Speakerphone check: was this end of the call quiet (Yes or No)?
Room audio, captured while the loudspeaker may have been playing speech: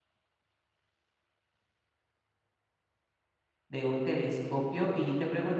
No